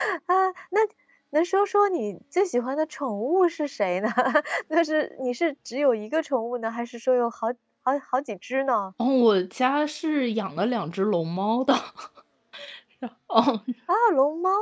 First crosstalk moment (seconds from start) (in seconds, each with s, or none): none